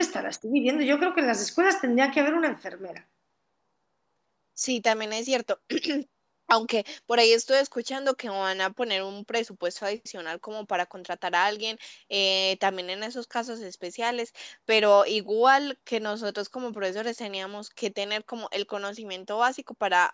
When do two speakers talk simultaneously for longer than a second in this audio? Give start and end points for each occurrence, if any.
none

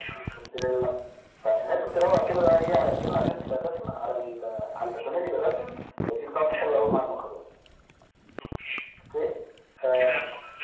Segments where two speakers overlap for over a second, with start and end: none

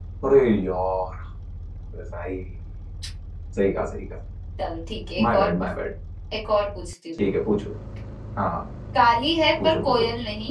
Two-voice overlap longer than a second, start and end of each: none

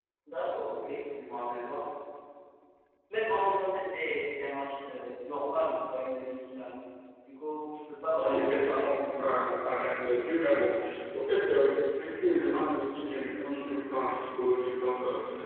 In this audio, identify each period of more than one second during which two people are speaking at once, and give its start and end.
8.2-9.5

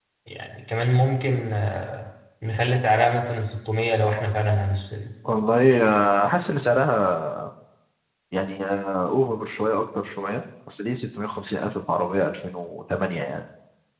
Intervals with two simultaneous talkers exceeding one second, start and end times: none

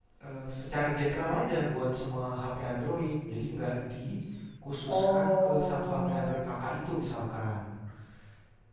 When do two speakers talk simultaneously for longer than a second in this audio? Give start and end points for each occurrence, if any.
4.9-6.5

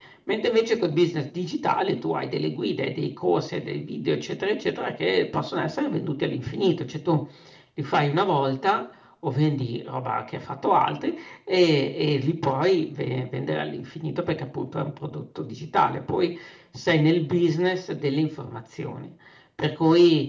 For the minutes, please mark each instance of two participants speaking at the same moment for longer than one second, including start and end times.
none

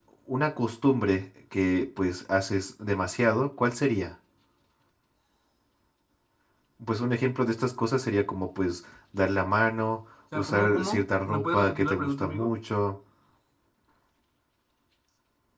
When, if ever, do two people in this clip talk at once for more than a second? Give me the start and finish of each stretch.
10.3-12.5

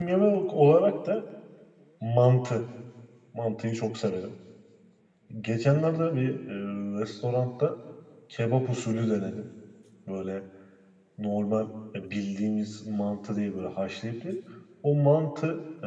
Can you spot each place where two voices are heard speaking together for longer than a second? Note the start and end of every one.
none

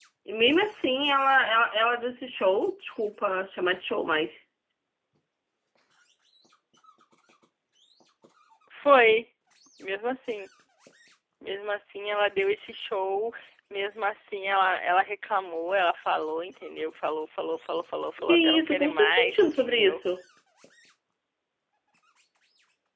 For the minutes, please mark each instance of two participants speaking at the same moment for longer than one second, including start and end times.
18.2-20.0

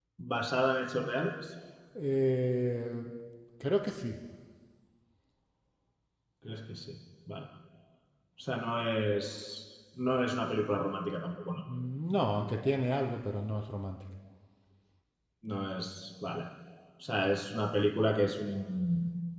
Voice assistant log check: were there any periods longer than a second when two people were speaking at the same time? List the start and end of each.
none

